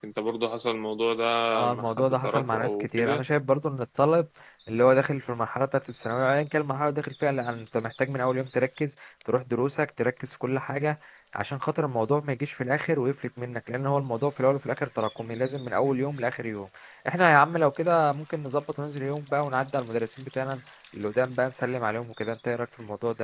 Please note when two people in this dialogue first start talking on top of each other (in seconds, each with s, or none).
1.7 s